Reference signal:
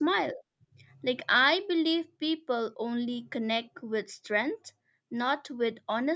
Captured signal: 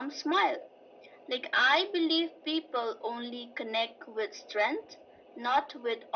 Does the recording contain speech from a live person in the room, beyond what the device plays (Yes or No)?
No